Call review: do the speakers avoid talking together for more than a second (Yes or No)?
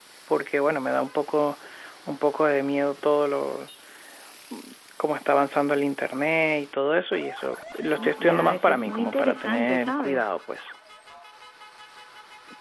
No